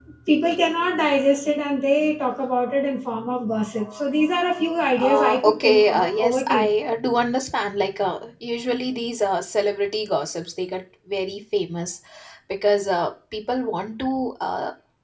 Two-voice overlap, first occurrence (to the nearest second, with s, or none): 5 s